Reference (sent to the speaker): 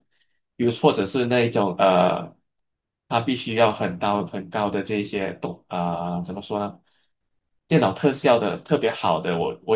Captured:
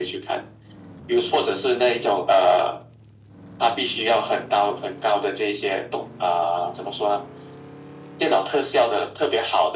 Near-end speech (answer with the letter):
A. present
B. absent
B